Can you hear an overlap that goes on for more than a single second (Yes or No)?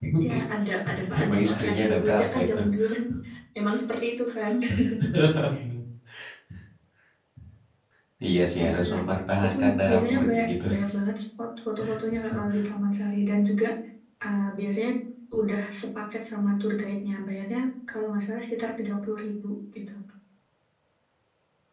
Yes